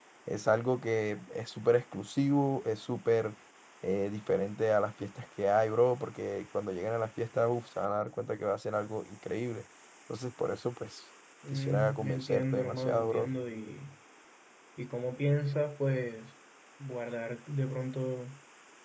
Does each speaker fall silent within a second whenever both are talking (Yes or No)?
No